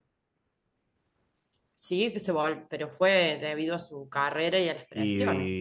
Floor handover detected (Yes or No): Yes